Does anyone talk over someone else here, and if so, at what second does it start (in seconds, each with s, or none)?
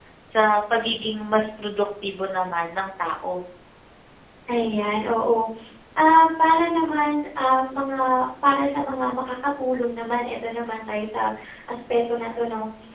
none